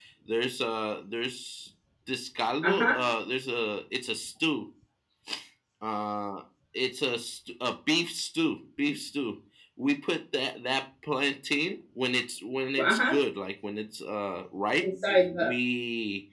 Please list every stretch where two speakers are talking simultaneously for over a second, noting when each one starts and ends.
none

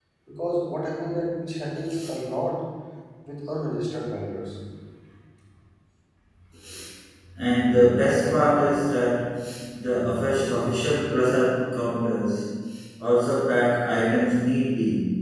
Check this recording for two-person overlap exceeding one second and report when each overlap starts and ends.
none

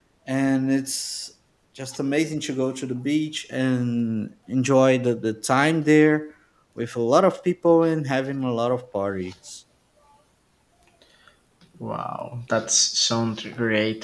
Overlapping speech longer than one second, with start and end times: none

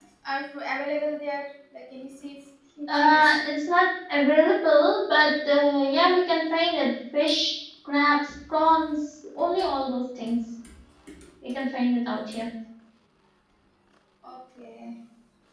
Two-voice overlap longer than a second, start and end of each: none

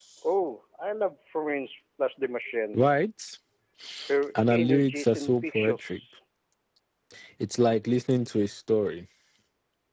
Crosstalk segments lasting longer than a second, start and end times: 4.5-6.0

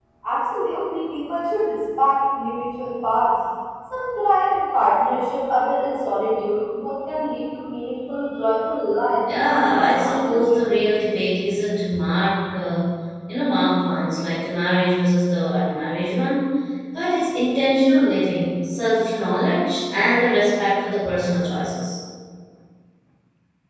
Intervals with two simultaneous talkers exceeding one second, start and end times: 9.2-10.6

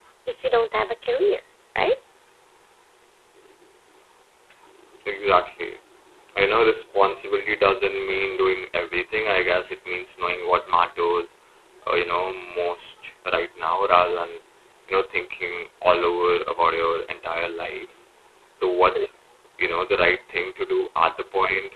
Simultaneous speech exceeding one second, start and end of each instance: none

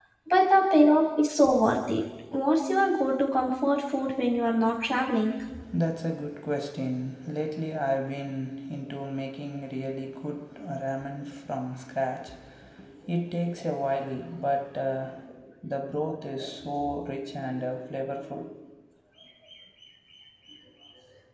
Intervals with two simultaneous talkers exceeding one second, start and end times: none

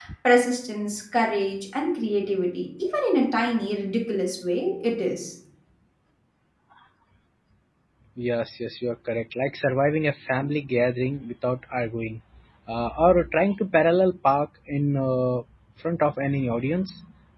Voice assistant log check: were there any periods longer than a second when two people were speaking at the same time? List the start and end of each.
none

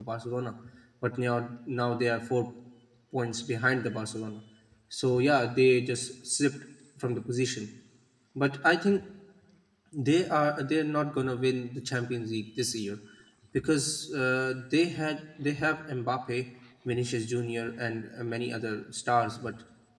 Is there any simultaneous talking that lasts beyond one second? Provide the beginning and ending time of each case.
none

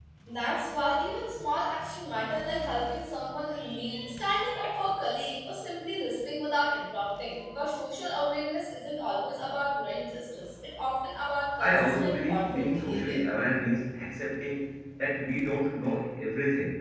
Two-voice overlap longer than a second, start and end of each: 11.6-13.2

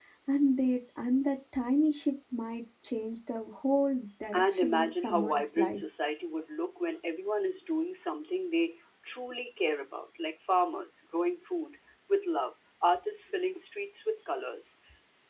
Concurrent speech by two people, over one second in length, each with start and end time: 4.3-5.8

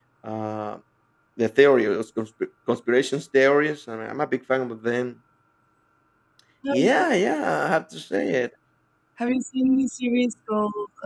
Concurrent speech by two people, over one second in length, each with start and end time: none

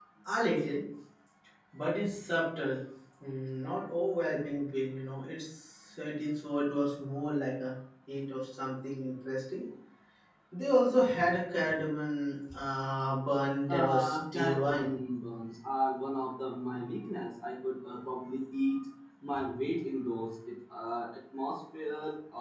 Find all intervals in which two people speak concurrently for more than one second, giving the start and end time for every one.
13.7-15.0

